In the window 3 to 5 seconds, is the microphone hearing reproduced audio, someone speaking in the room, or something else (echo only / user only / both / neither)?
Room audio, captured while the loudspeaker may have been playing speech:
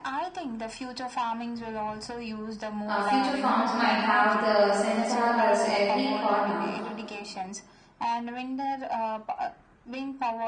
both